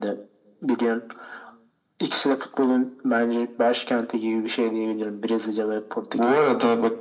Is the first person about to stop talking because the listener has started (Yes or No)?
Yes